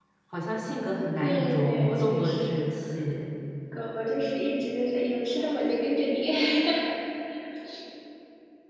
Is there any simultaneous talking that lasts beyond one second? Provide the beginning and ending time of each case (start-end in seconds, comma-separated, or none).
1.2-2.6